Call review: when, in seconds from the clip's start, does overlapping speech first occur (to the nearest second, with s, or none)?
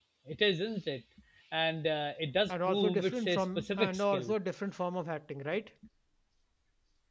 2 s